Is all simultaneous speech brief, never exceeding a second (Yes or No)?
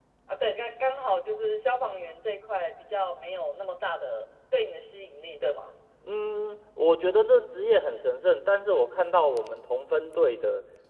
Yes